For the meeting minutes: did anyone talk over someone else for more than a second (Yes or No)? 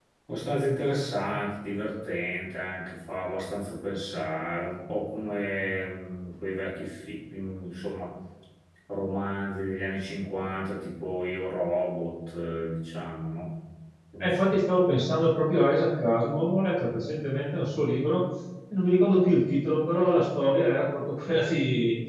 No